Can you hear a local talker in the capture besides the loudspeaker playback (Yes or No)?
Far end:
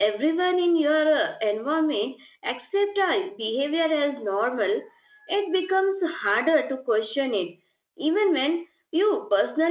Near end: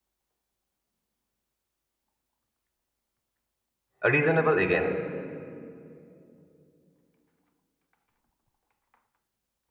Yes